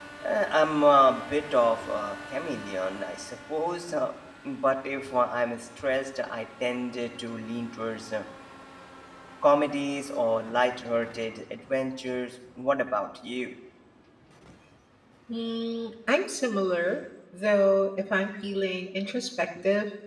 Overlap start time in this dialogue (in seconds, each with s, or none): none